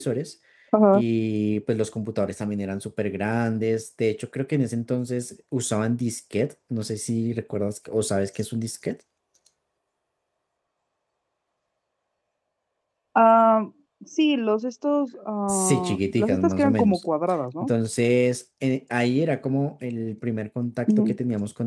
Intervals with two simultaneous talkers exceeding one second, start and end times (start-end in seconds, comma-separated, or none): 15.5-17.0